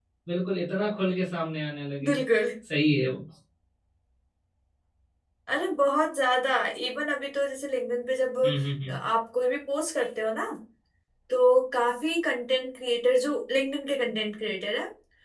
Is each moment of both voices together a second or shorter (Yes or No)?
Yes